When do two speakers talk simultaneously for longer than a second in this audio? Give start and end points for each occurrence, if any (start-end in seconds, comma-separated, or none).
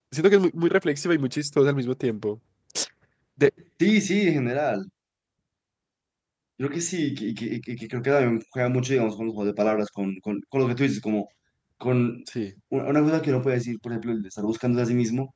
none